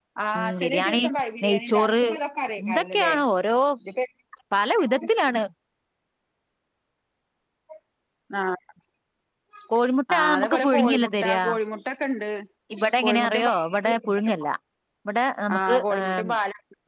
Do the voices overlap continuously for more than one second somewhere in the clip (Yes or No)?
Yes